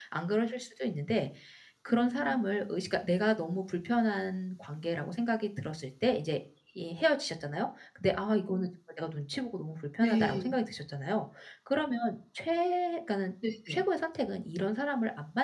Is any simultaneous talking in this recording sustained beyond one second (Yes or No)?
No